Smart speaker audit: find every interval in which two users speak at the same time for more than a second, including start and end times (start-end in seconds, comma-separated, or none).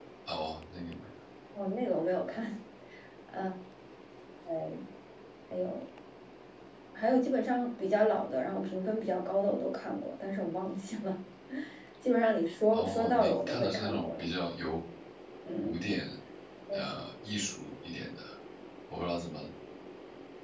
12.7-14.2